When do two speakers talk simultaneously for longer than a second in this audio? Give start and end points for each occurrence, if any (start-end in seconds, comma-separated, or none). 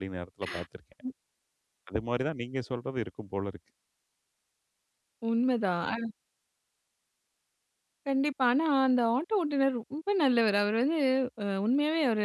none